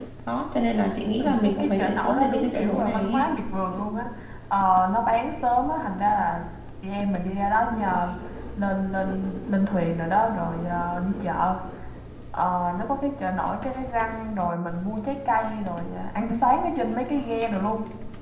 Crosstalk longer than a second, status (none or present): present